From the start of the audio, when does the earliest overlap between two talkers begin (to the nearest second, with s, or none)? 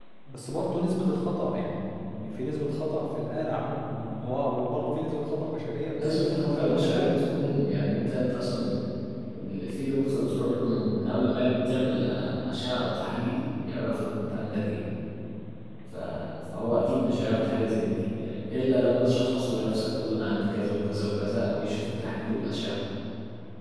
6 s